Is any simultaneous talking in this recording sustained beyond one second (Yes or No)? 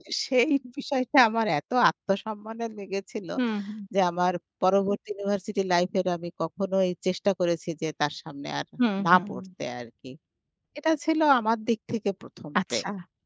No